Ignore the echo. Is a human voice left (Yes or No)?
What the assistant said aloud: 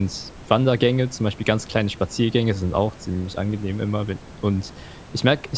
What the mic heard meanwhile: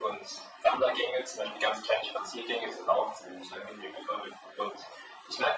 No